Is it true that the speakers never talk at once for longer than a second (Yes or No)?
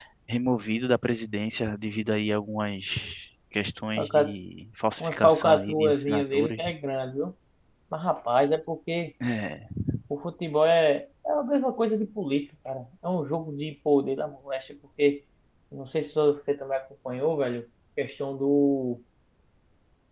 No